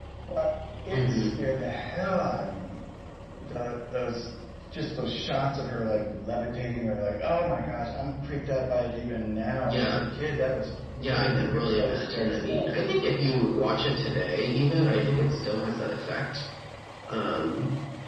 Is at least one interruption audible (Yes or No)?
Yes